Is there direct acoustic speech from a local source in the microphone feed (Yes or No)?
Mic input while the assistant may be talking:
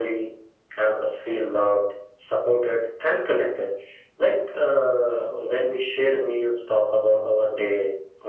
No